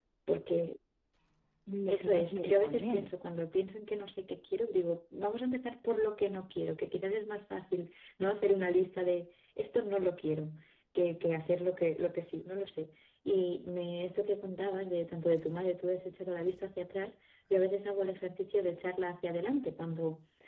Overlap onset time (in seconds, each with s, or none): 1.9 s